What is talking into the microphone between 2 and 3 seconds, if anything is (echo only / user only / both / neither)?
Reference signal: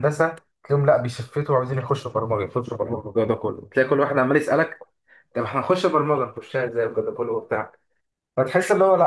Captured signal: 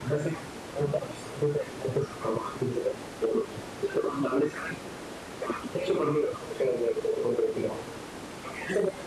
echo only